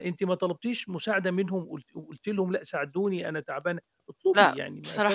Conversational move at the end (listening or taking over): taking over